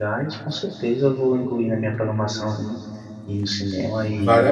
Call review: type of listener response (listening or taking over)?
taking over